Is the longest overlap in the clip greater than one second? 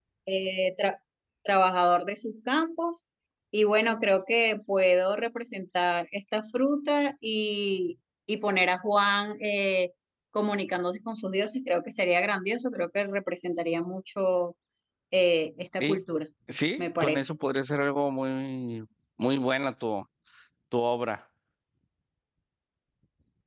No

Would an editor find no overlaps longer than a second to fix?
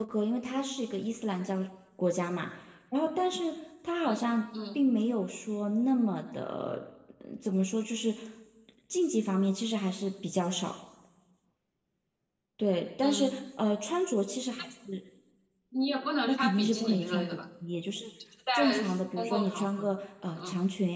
No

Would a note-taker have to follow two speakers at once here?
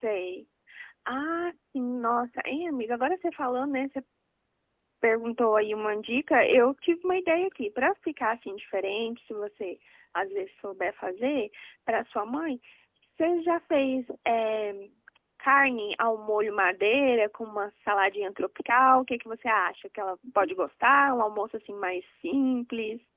No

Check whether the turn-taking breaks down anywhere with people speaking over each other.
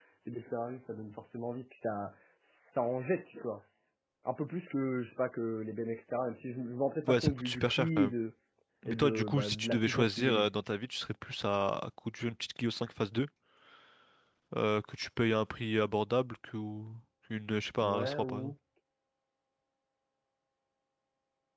Yes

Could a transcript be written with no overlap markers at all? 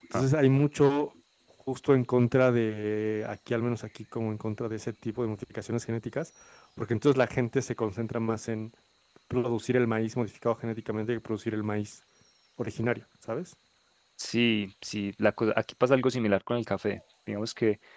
Yes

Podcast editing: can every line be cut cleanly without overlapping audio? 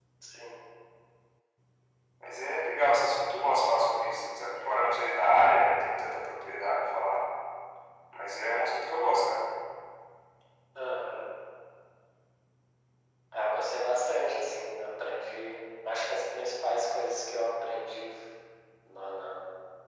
Yes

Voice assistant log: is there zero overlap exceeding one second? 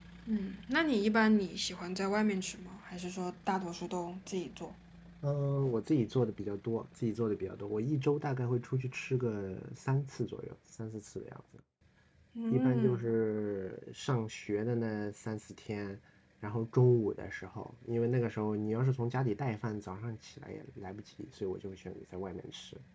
Yes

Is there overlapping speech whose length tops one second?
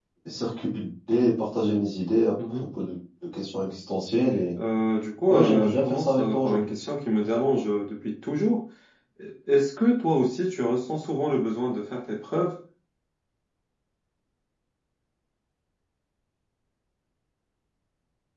Yes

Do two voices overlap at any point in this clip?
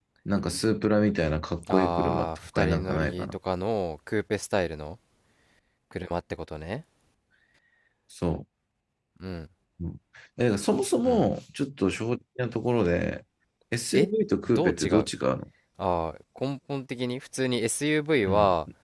Yes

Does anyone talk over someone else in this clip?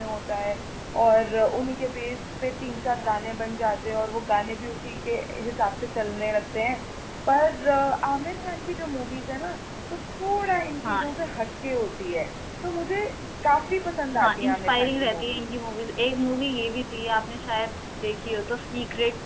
Yes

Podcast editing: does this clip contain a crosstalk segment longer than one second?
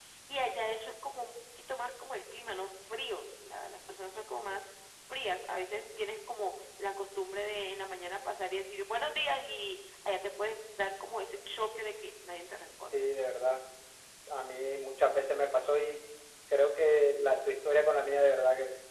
No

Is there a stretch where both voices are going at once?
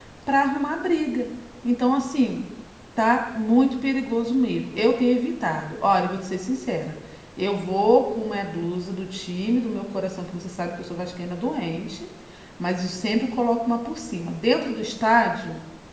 No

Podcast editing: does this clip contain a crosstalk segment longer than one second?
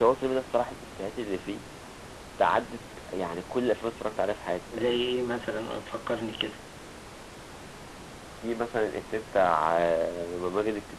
No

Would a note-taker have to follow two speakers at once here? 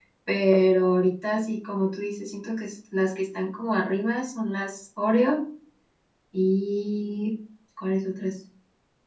No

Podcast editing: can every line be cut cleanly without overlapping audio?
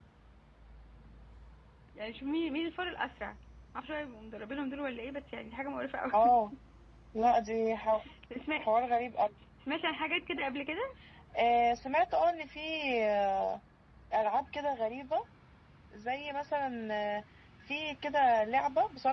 Yes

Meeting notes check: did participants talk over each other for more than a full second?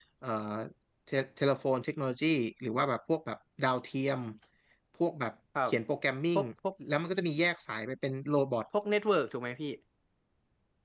No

